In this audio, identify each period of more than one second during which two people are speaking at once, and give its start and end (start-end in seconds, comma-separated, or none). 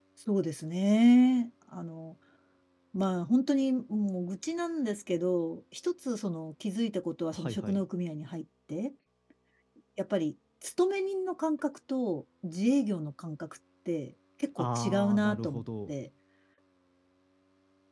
14.6-15.9